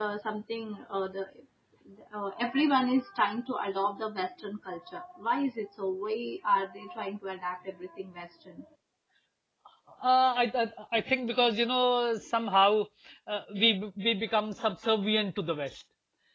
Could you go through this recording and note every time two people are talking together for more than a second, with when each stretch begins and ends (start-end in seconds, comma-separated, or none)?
none